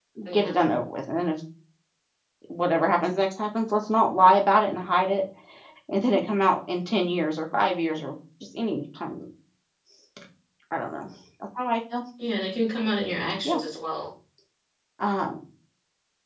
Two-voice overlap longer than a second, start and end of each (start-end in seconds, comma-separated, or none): none